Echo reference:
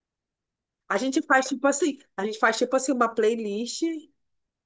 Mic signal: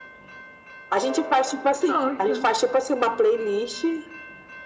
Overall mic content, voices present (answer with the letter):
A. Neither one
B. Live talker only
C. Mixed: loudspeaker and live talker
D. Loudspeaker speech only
C